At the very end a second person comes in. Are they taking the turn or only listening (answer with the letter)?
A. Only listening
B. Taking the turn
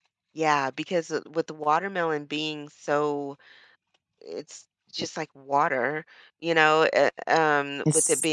A